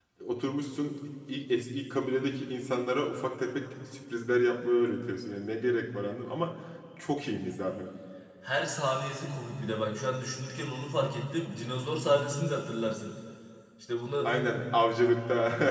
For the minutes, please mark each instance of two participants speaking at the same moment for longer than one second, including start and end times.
none

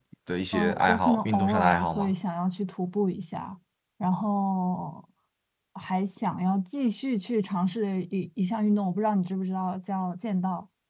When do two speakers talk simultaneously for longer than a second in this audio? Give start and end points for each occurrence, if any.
0.5-2.1

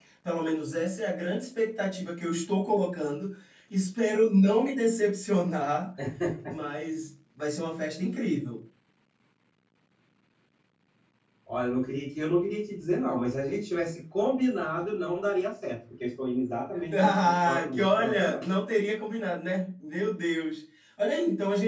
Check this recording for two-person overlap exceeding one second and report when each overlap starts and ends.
17.0-18.4

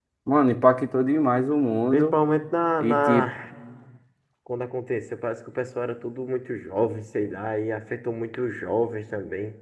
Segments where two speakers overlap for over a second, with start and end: none

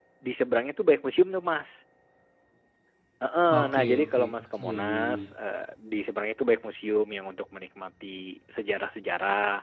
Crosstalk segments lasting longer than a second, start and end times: 3.6-5.2

